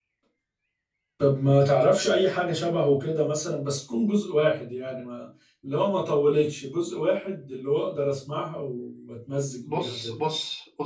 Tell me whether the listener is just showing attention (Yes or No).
No